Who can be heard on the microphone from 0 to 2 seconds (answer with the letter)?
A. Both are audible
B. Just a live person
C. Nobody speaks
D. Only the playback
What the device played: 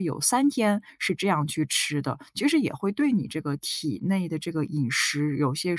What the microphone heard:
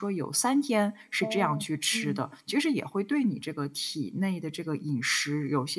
A